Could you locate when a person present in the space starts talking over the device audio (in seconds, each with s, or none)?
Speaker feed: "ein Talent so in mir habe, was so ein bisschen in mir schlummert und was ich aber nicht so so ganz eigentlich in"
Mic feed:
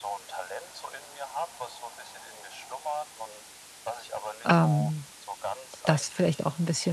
4.5 s